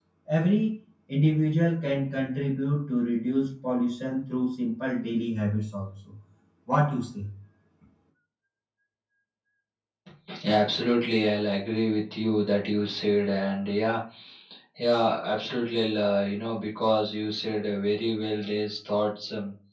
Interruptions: none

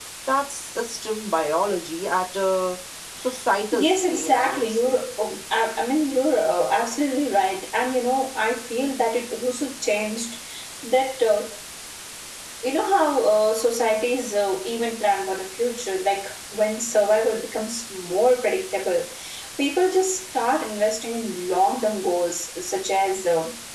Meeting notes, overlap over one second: present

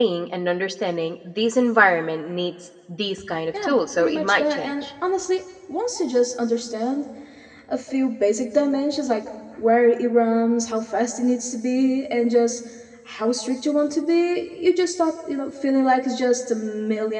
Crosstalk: present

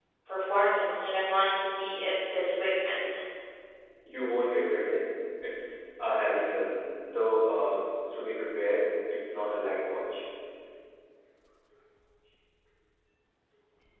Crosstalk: none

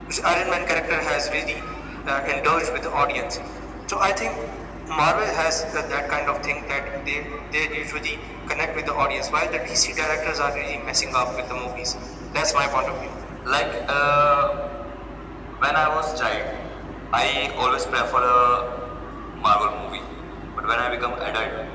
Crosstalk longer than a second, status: none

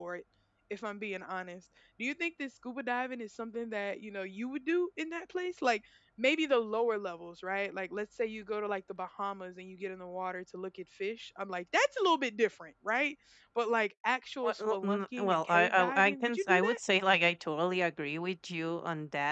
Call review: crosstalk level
present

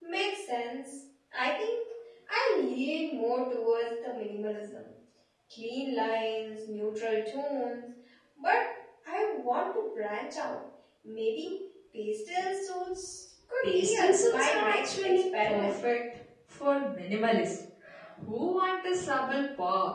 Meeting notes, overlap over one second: present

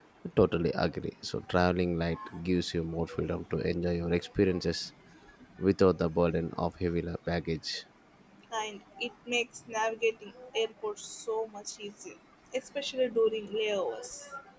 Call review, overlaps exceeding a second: none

